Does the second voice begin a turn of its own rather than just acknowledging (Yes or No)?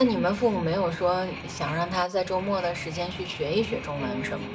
Yes